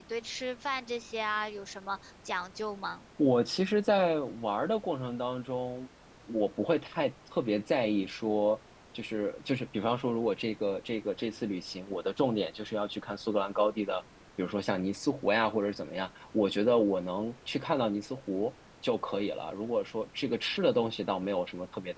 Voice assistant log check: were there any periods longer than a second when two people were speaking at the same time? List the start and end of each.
none

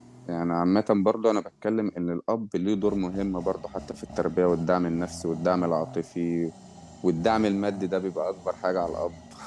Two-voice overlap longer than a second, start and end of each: none

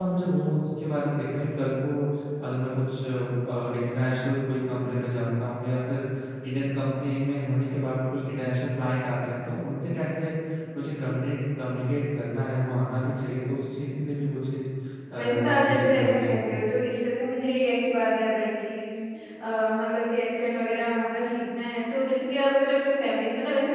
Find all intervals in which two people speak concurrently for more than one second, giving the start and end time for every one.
15.1-16.4

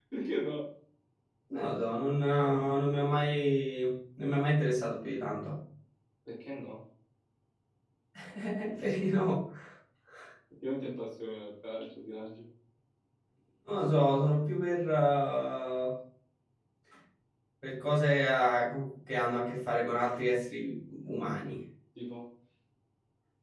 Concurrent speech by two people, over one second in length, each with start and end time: none

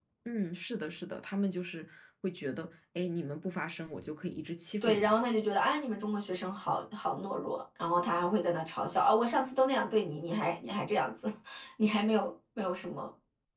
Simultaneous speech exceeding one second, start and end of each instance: none

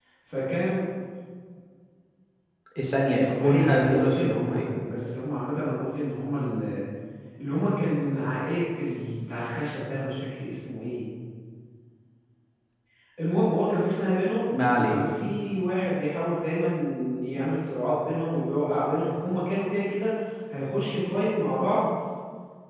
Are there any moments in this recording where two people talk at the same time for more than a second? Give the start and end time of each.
3.2-4.7

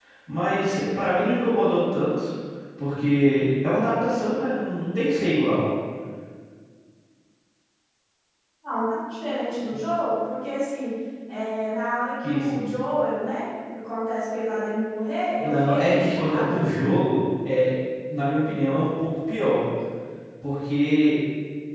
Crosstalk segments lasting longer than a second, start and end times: 15.4-16.6

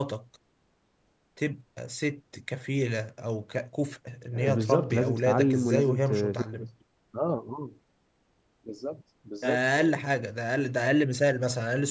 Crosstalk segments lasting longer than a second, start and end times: 4.3-6.7

